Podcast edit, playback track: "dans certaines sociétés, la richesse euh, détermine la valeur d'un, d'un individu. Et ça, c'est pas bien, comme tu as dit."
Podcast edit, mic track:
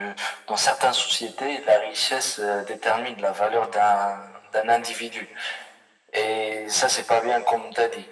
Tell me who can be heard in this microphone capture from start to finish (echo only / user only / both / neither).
echo only